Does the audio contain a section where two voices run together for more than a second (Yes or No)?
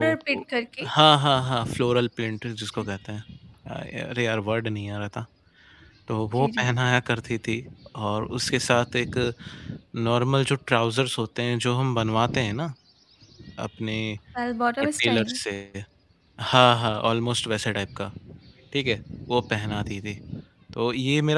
No